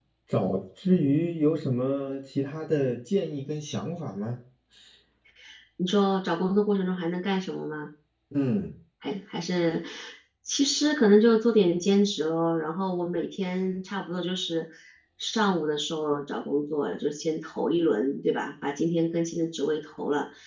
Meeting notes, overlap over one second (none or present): none